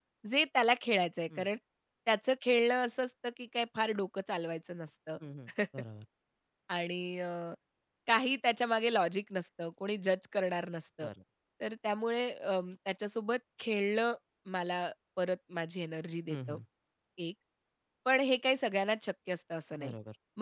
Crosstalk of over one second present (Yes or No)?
No